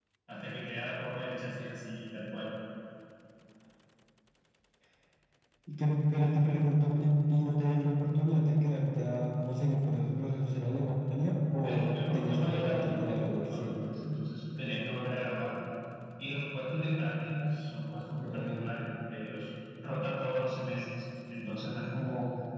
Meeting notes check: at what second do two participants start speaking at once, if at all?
11.6 s

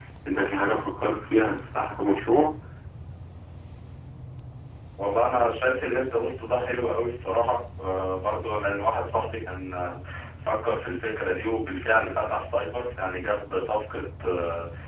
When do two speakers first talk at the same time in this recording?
none

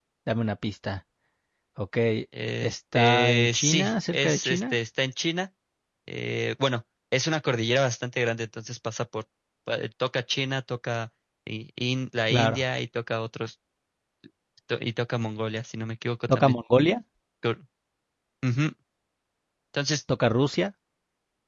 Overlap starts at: 2.6 s

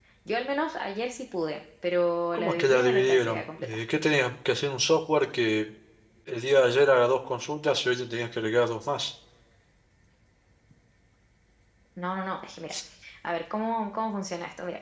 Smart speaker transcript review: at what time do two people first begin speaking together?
2.3 s

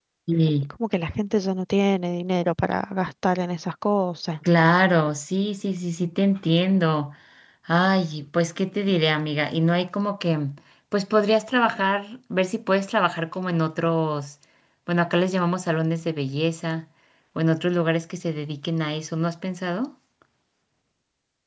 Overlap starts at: none

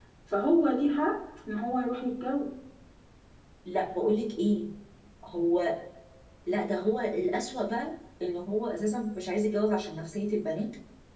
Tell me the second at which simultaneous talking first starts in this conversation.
none

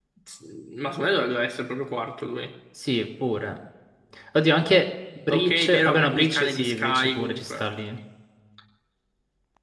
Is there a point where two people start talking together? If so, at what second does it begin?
5.3 s

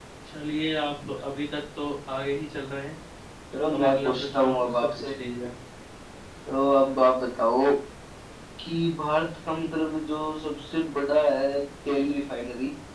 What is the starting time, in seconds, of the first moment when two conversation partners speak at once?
3.7 s

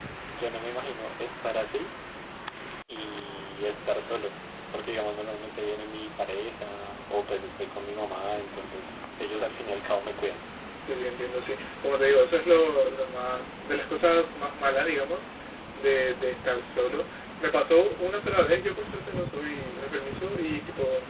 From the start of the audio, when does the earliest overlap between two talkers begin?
none

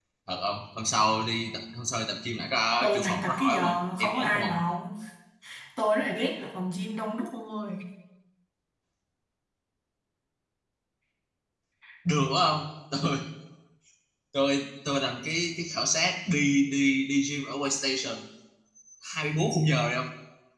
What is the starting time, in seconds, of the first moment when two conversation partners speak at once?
2.8 s

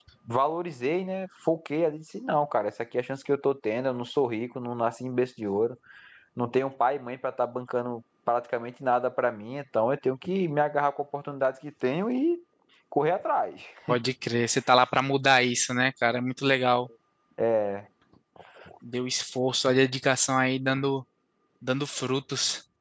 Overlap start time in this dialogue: none

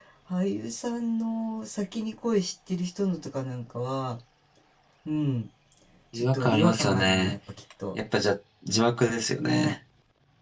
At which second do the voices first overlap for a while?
6.1 s

